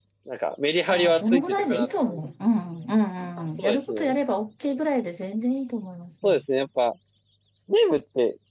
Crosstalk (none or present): present